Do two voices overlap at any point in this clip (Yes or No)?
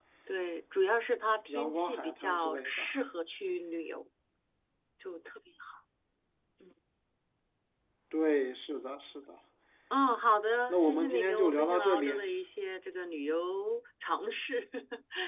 Yes